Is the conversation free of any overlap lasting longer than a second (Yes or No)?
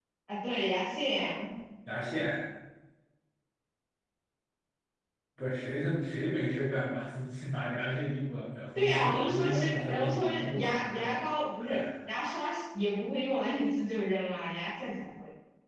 No